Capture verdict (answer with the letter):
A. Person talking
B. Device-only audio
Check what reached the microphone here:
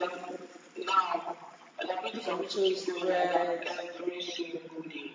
A